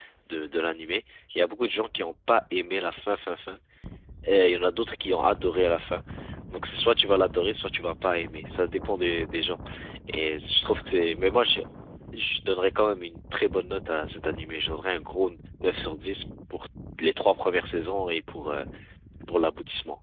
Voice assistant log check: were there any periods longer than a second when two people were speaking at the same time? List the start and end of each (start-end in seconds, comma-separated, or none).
none